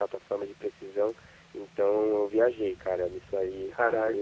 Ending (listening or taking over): listening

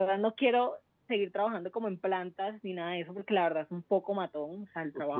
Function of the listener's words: listening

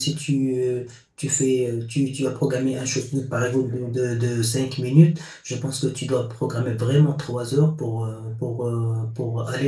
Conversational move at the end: listening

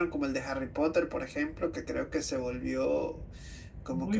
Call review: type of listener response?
taking over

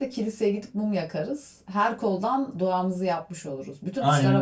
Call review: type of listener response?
taking over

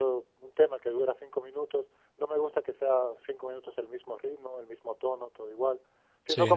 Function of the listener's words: listening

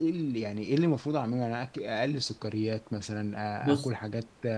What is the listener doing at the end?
listening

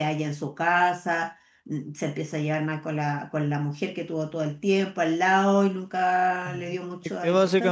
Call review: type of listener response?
taking over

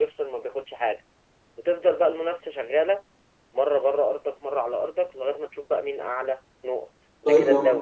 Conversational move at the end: taking over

